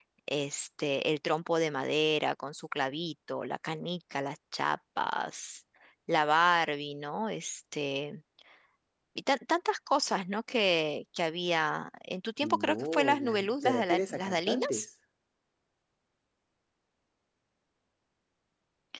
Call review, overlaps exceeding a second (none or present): present